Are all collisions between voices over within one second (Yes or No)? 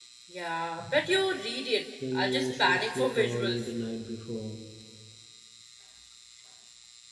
No